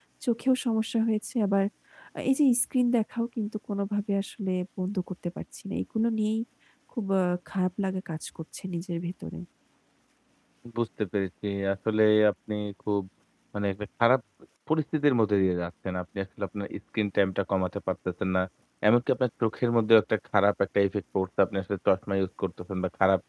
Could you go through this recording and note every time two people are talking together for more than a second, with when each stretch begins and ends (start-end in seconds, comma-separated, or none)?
none